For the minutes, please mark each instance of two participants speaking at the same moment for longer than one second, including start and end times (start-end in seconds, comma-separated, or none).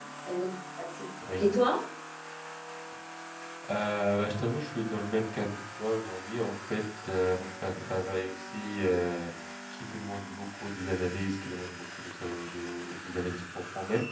none